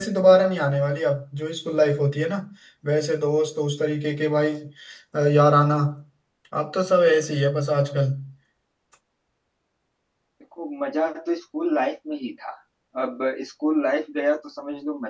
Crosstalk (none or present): none